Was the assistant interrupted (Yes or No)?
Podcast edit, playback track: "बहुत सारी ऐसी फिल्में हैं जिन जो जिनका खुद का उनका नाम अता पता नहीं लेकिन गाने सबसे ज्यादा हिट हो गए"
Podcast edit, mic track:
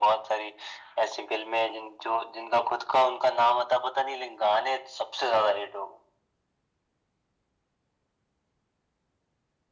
No